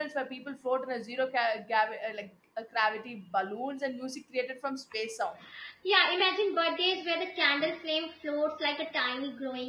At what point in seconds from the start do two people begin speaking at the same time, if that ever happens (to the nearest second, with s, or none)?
none